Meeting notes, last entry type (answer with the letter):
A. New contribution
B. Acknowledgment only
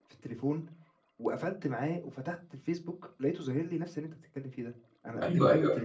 A